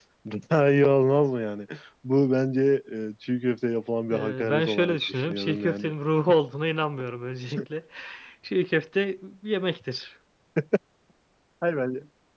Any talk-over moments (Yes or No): Yes